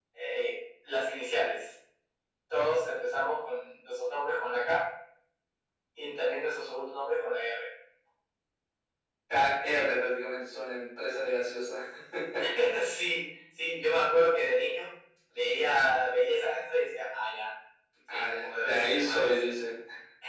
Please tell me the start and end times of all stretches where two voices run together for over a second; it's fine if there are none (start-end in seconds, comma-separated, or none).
18.1-19.5